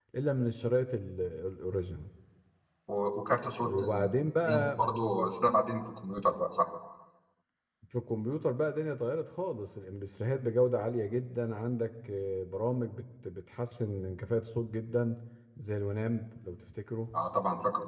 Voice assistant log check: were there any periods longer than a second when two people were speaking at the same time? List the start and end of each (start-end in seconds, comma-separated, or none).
none